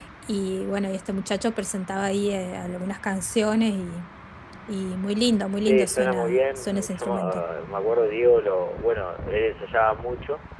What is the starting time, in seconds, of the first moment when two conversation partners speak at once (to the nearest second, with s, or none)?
6 s